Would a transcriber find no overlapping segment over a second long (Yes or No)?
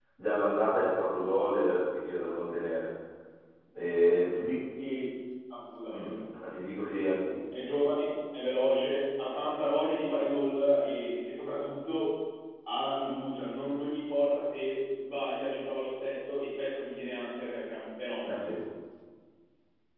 Yes